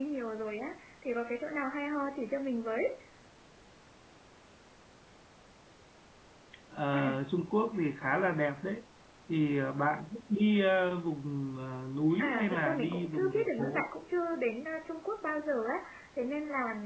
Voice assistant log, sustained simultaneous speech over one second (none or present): present